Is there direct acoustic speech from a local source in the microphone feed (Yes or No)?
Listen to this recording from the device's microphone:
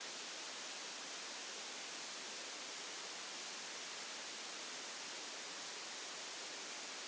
No